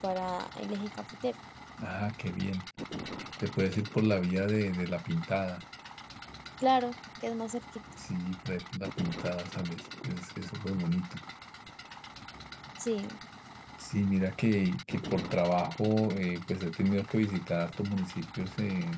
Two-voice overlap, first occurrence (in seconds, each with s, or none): none